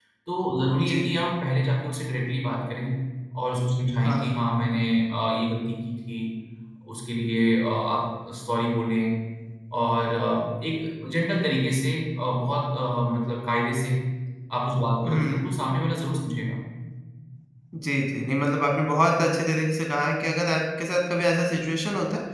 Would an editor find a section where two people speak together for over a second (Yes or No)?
No